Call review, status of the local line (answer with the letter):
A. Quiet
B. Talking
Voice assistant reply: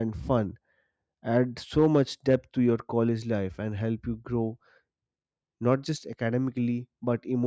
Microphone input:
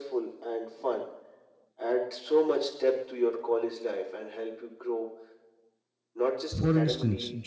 B